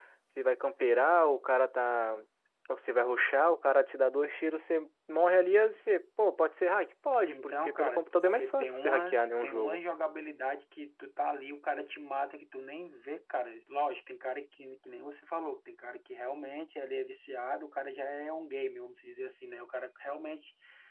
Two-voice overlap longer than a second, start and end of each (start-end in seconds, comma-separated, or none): 7.3-9.8